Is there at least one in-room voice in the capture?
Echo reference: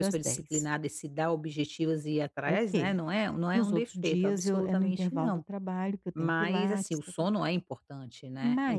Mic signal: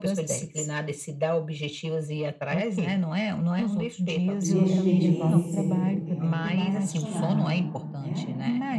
Yes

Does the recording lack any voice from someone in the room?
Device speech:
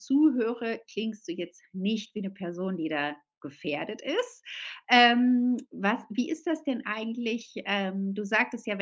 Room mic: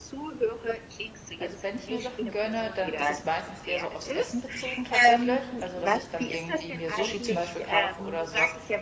No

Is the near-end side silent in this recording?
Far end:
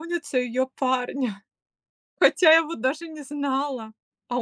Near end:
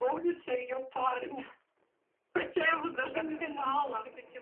No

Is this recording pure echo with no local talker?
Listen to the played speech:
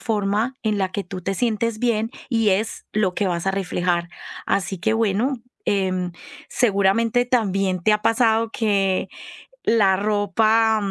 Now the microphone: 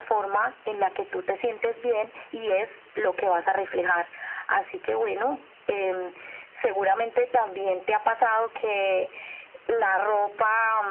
Yes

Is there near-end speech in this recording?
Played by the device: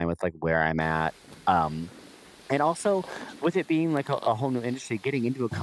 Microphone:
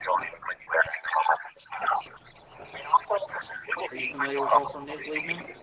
Yes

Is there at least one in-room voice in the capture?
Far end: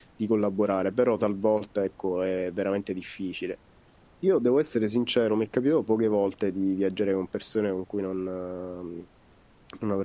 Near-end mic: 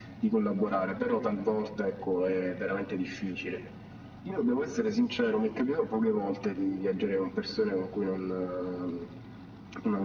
No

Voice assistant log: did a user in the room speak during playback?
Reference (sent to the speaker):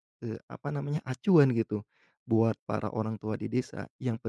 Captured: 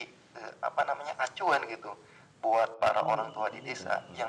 Yes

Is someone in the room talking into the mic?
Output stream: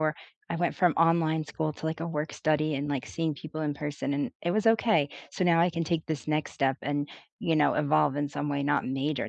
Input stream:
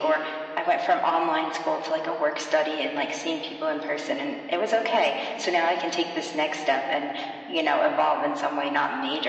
No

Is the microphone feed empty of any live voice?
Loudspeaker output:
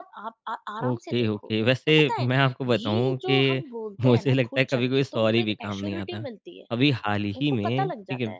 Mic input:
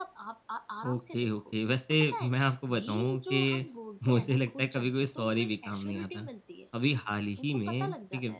Yes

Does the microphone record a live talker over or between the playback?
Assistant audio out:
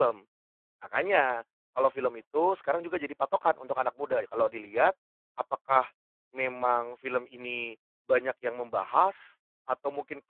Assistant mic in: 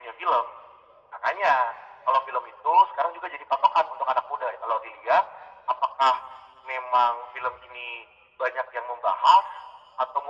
No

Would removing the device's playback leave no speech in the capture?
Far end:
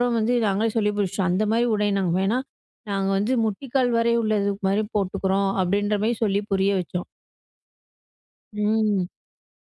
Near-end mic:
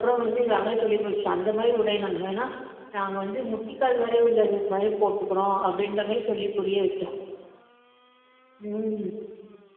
Yes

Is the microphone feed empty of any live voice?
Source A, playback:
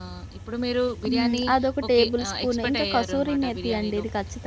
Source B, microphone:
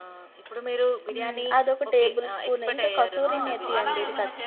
No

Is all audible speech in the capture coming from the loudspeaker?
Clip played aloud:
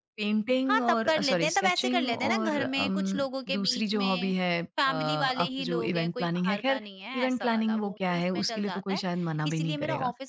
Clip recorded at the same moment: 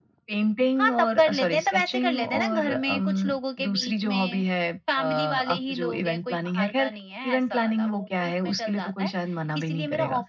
Yes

